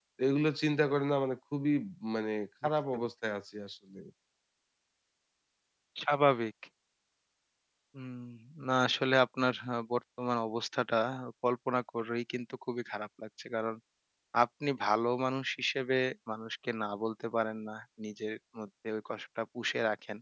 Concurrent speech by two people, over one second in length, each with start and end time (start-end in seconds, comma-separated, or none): none